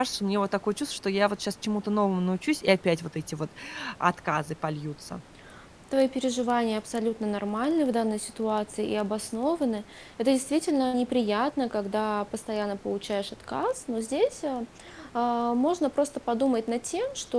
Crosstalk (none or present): none